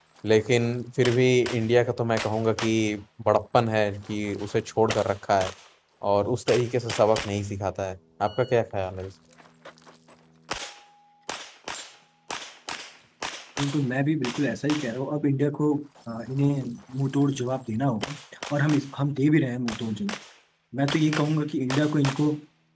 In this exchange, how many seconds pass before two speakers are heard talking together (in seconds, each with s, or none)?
none